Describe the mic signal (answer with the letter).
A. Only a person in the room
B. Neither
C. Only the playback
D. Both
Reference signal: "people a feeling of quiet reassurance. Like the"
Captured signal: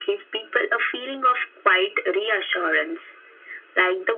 C